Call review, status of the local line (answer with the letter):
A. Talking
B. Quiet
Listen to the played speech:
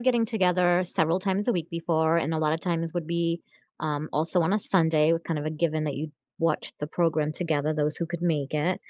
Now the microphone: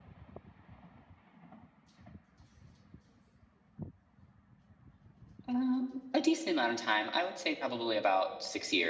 A